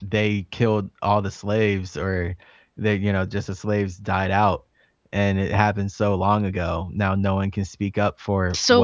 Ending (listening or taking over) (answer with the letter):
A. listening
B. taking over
B